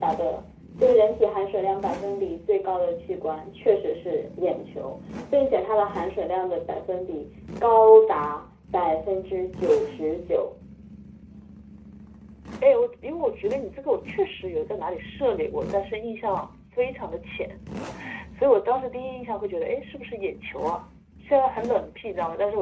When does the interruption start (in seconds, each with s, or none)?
none